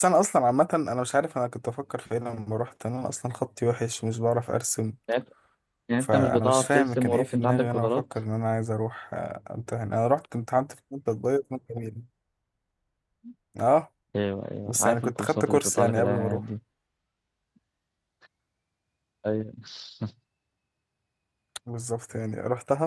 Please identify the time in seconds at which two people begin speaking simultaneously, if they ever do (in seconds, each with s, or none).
6.0 s